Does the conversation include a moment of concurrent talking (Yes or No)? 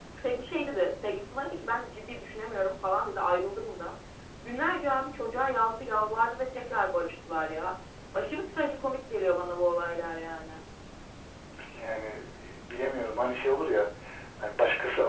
No